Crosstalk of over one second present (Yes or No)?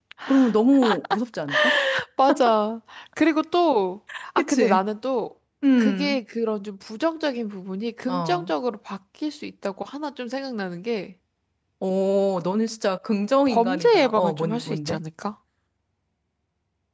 Yes